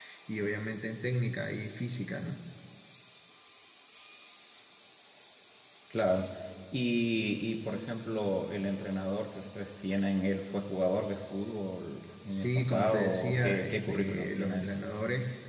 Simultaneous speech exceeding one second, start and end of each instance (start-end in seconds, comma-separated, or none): 12.3-14.7